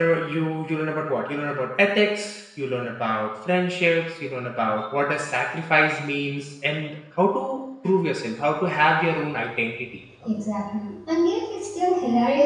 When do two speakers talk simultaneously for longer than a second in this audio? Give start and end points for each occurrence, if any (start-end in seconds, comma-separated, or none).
none